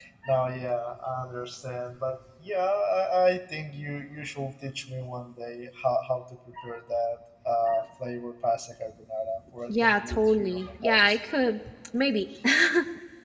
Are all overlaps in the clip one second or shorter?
No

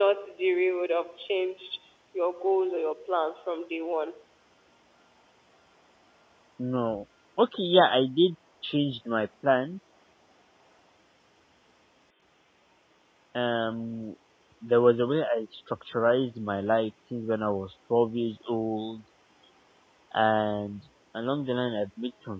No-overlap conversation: Yes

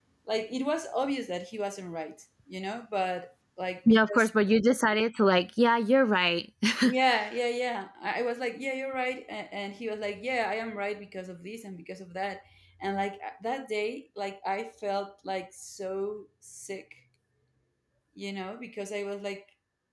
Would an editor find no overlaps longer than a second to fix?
Yes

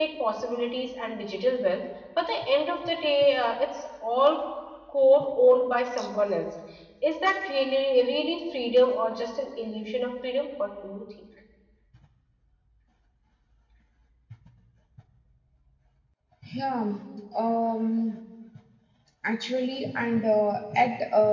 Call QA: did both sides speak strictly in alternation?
Yes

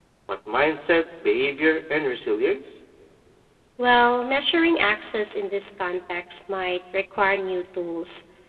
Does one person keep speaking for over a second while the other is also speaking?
No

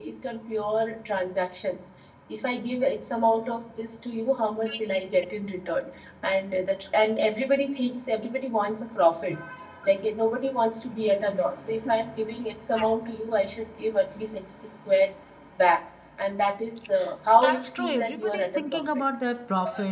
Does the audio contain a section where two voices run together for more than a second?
Yes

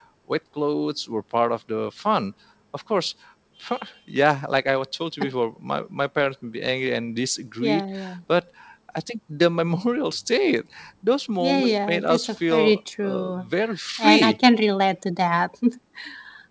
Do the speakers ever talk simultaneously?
Yes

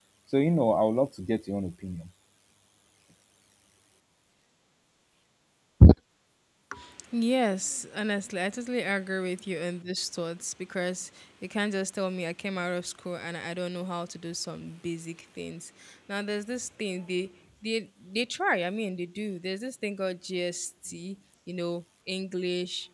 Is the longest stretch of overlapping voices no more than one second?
Yes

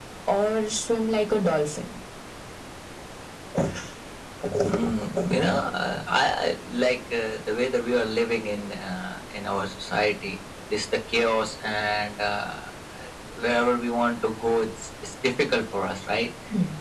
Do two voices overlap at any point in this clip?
No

